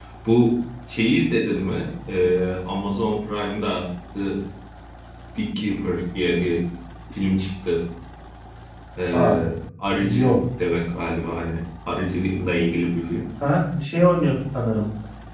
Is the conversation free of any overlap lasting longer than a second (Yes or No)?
Yes